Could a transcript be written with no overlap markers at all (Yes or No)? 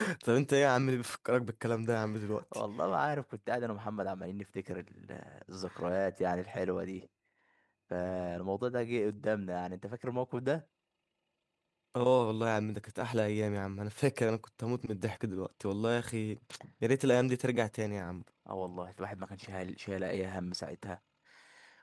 Yes